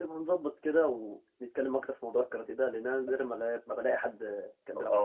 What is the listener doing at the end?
taking over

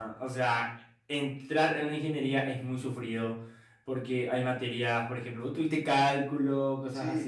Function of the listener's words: listening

